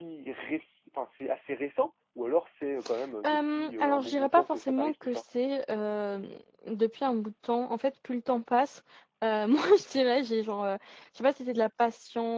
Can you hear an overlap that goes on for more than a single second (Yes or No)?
Yes